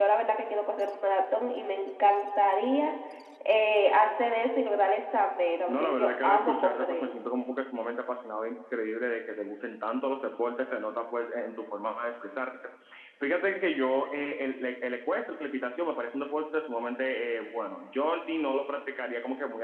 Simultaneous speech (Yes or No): Yes